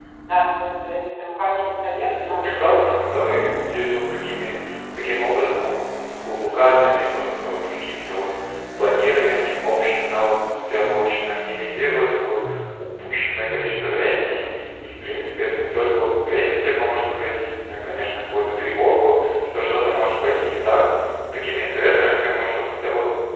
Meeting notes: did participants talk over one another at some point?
Yes, from 2.2 s

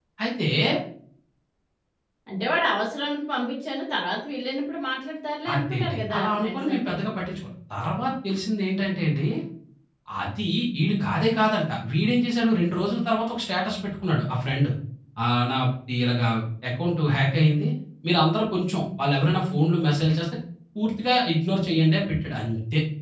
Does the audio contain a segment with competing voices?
Yes, from 5.5 s

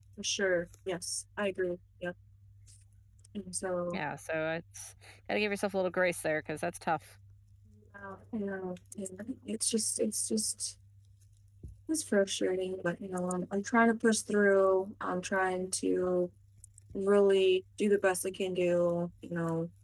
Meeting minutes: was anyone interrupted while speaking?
No

